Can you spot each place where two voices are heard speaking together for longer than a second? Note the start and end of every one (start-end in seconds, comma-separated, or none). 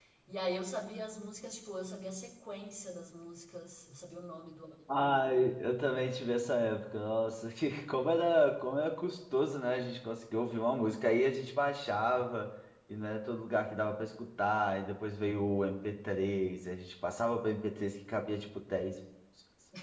none